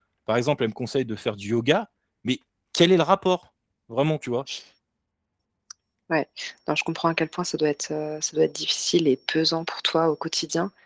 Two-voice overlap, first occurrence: none

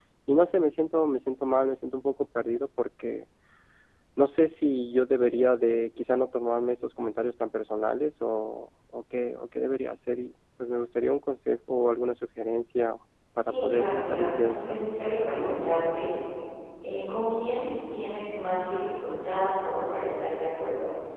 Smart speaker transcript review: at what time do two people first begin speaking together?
13.4 s

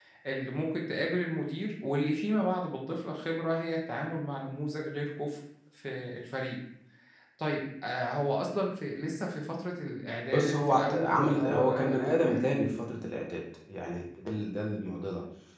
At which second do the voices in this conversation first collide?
10.3 s

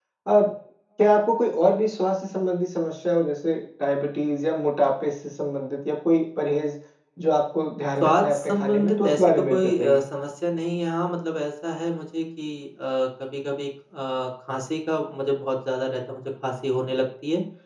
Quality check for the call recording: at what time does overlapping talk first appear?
8.0 s

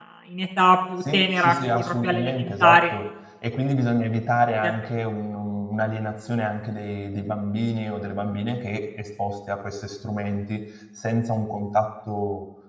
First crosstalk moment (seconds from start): 1.0 s

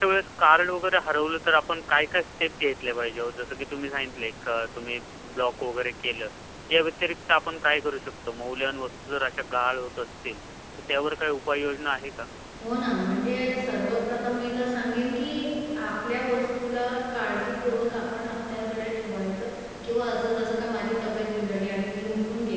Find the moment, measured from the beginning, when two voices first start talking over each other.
none

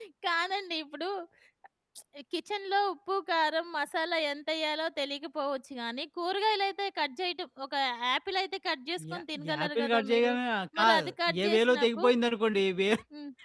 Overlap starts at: 9.1 s

